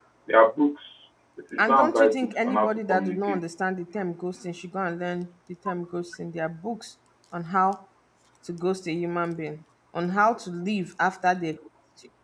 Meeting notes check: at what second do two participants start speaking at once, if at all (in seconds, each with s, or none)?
1.6 s